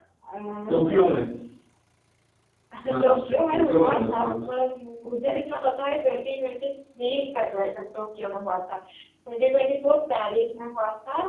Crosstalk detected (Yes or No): Yes